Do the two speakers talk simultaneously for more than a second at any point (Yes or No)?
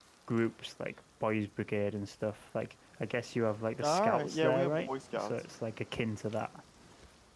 Yes